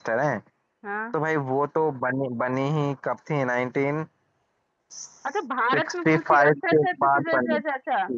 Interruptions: present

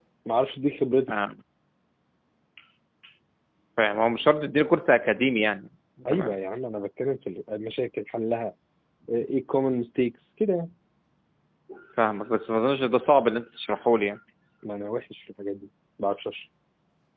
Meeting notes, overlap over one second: none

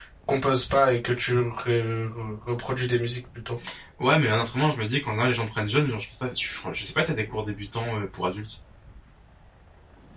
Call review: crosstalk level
none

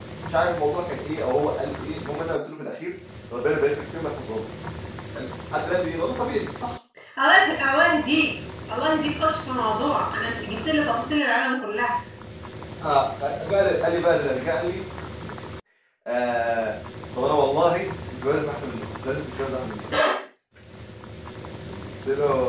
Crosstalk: none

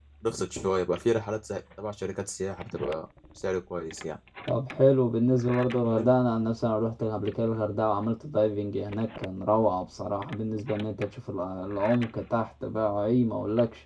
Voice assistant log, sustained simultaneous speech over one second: none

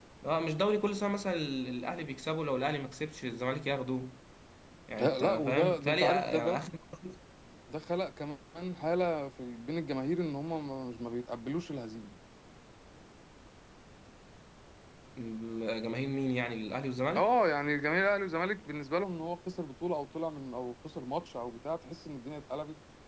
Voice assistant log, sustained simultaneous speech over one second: present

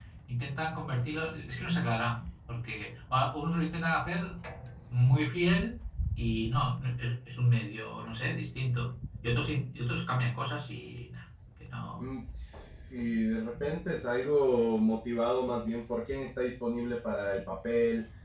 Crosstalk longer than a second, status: none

